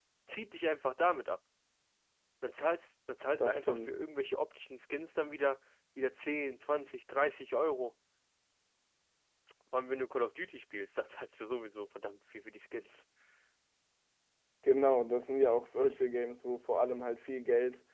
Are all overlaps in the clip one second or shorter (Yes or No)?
Yes